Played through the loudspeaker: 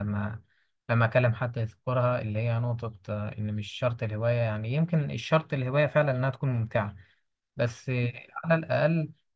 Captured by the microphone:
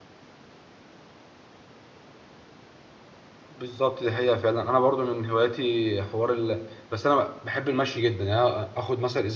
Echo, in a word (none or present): none